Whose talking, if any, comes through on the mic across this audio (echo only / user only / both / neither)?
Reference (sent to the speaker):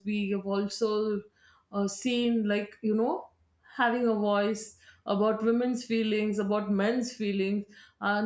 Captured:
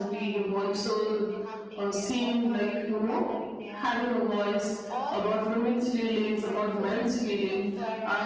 both